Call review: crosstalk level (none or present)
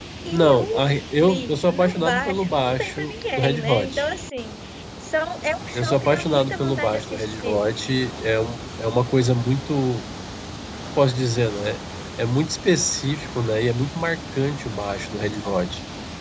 present